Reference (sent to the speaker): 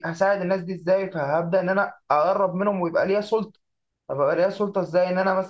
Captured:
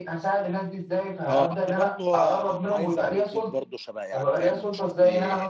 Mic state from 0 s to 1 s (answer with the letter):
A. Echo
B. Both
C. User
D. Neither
A